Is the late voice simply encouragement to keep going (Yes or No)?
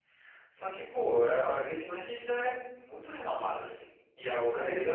Yes